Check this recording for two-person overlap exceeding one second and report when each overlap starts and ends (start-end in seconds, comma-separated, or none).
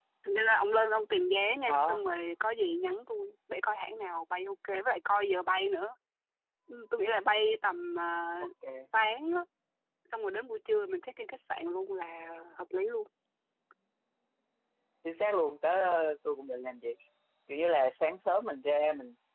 none